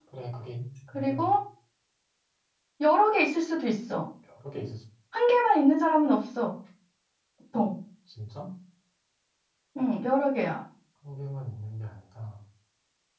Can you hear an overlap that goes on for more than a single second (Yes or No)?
No